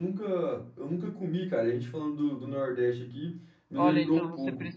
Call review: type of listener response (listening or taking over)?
taking over